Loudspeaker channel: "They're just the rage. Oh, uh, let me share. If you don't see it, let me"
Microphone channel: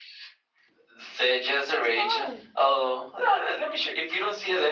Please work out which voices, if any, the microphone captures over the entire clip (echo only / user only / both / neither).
both